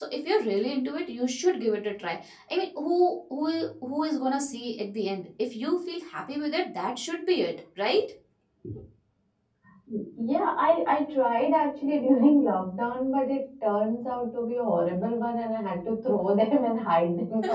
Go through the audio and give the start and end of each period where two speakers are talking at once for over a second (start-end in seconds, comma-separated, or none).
none